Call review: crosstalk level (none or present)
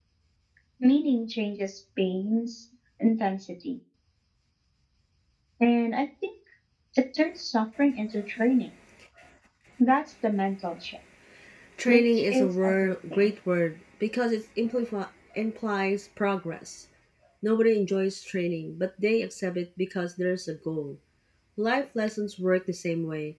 present